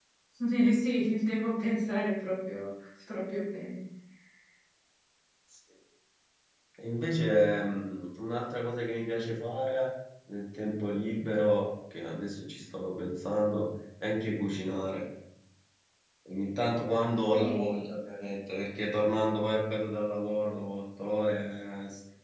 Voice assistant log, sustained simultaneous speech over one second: none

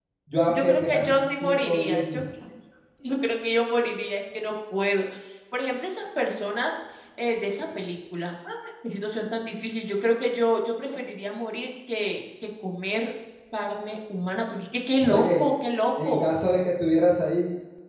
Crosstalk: present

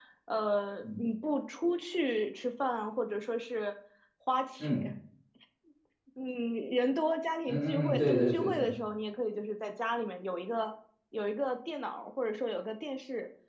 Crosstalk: present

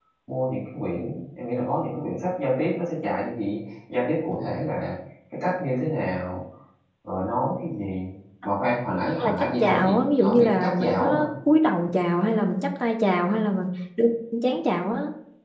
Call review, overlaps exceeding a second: present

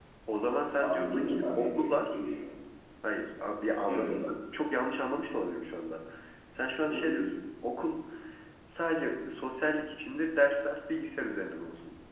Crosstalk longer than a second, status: present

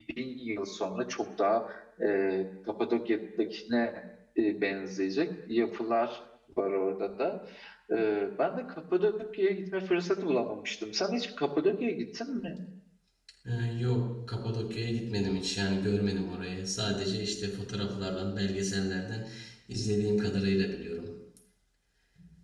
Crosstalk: none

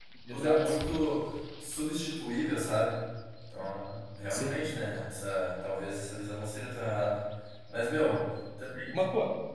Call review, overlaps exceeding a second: none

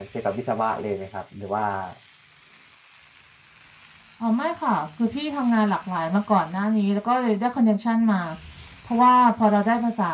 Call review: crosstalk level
none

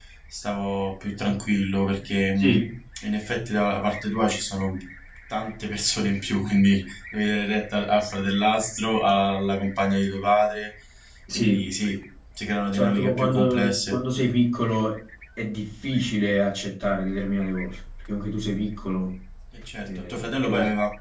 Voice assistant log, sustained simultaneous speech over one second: present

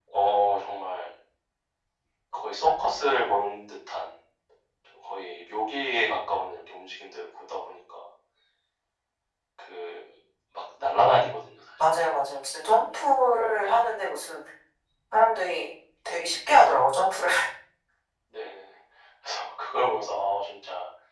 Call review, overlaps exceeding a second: none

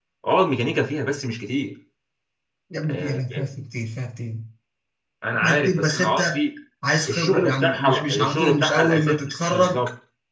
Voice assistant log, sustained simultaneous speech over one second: present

